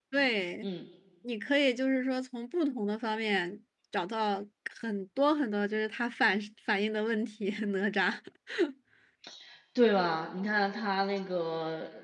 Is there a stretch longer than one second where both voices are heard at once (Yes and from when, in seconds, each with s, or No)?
No